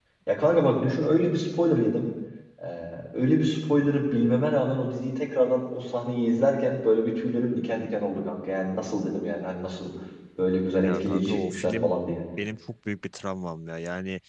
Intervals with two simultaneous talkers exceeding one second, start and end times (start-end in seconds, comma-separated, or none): 10.8-12.1